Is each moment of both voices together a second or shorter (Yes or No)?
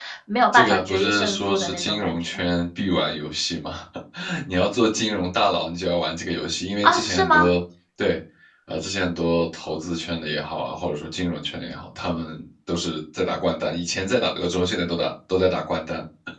No